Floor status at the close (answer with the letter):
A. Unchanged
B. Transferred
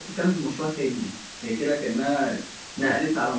A